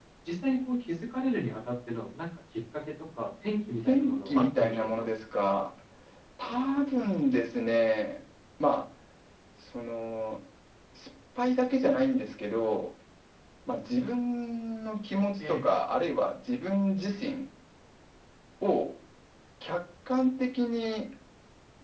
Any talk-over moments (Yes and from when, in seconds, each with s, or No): Yes, from 3.9 s